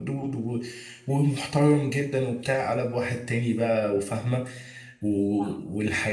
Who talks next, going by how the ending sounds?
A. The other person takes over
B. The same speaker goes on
B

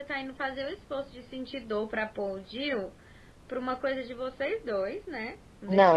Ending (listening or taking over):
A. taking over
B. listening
A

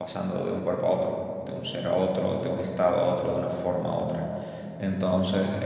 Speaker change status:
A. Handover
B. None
A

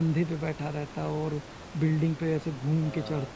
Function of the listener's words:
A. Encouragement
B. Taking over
B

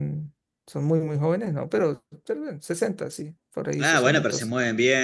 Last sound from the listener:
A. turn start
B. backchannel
A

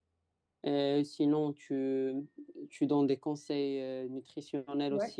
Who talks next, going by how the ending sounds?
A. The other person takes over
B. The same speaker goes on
A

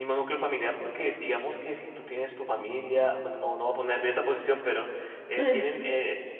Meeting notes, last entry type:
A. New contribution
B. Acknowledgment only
B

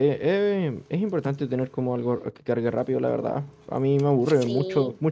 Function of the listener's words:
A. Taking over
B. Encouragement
B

